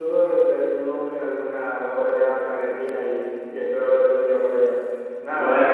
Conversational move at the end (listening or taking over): taking over